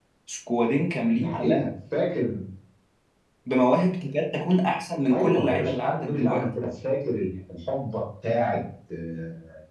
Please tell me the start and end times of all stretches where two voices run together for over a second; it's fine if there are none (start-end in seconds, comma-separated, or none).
5.1-6.4